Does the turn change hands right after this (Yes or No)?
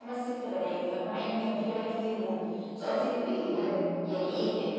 No